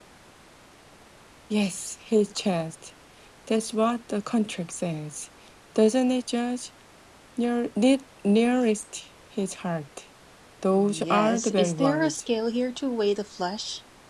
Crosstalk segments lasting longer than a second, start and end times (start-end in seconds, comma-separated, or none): 10.7-12.2